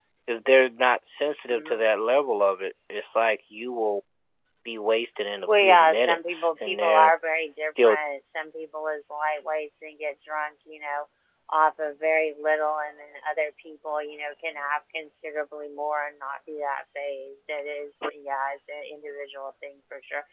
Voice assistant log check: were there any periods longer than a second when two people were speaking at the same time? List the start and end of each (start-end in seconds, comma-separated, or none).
5.5-7.1